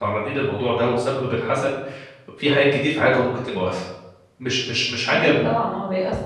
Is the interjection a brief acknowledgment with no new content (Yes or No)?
No